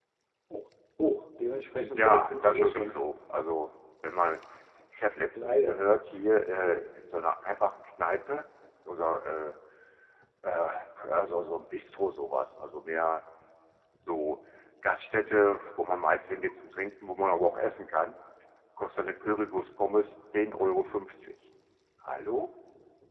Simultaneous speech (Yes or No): Yes